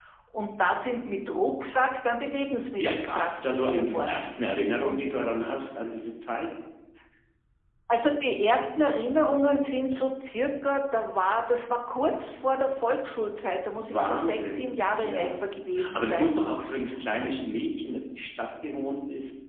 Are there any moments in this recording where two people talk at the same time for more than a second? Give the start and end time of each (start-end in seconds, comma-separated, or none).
2.8-4.2, 13.8-15.4